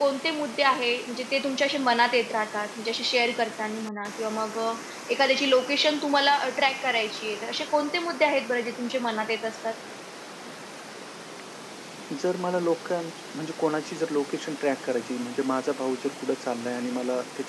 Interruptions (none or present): none